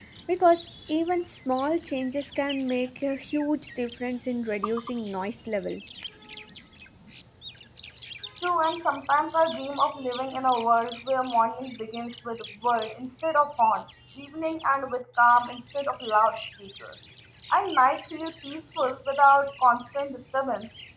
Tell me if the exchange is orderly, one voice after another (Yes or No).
Yes